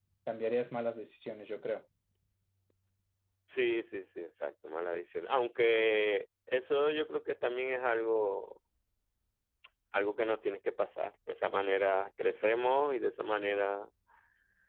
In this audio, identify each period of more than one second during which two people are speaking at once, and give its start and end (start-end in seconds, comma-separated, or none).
none